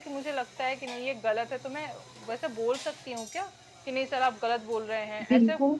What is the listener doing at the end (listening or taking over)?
taking over